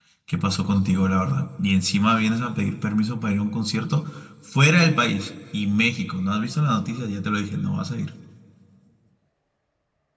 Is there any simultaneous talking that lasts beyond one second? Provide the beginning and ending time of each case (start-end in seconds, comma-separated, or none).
none